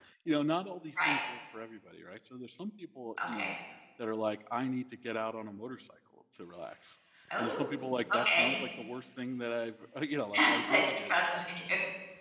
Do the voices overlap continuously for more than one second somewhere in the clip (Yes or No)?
Yes